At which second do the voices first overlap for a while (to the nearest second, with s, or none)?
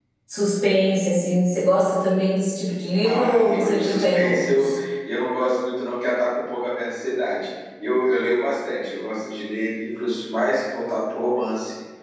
3 s